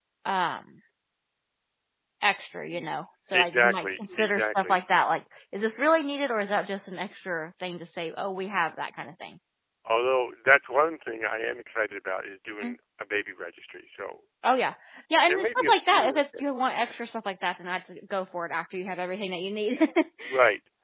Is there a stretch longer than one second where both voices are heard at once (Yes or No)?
Yes